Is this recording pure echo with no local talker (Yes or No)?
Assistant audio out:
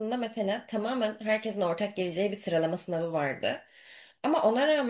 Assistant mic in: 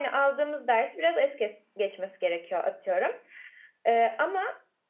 No